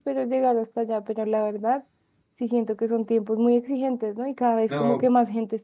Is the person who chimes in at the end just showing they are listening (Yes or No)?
Yes